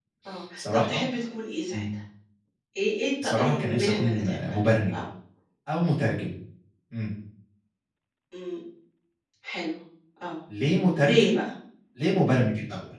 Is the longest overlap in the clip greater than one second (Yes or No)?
Yes